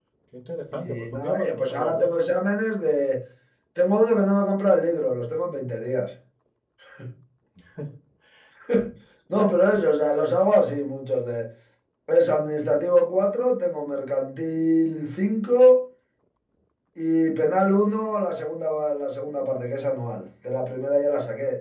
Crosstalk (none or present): present